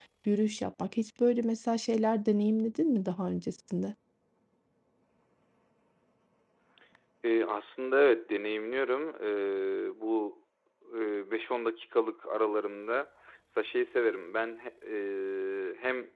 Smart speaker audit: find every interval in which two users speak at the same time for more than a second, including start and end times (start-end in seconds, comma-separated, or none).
none